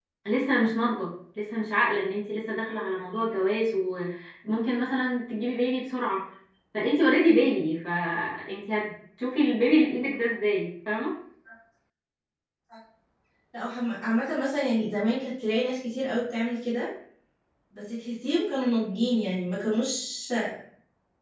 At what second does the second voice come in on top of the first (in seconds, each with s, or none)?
none